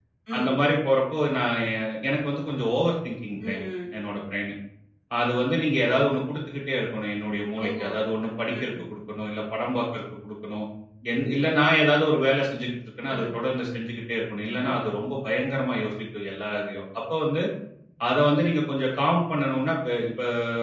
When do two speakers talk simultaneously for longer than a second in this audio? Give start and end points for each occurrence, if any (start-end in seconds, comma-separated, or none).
none